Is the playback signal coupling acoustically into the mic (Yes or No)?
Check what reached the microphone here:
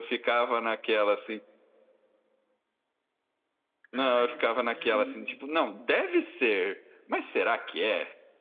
Yes